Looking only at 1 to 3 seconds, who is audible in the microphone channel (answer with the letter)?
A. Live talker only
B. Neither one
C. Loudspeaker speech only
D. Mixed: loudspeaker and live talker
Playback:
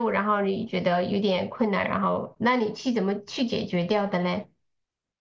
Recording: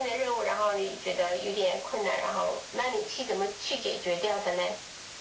C